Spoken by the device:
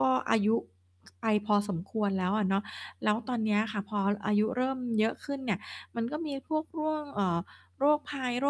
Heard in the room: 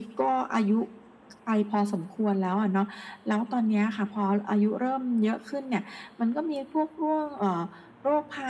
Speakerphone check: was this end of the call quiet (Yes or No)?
Yes